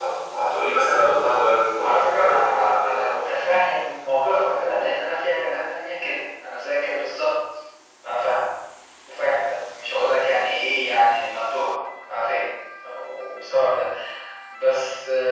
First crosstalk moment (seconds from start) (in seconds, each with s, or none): 1.8 s